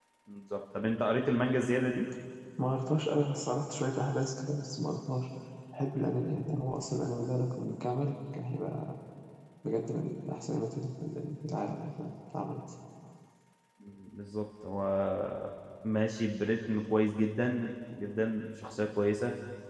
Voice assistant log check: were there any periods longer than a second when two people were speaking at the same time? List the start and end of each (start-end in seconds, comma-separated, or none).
none